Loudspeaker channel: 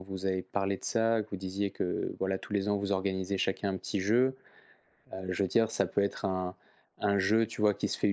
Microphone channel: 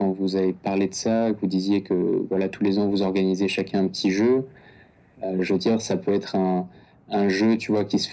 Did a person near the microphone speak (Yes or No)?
No